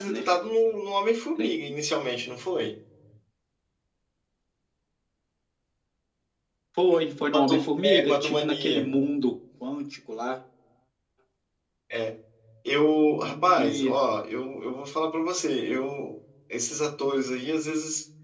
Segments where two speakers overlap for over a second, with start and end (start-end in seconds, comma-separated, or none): 7.3-8.9